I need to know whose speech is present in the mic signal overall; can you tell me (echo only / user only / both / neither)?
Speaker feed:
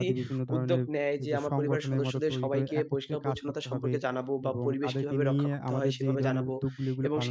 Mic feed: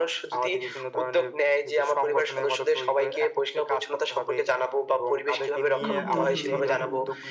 both